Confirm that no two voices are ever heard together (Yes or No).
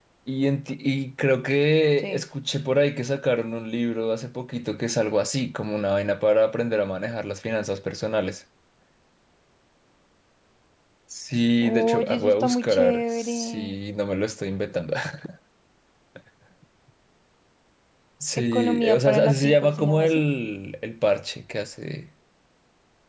No